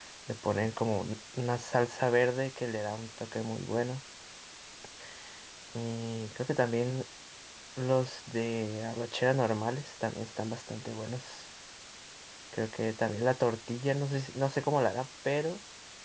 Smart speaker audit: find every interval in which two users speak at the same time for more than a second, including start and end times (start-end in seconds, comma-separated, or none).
none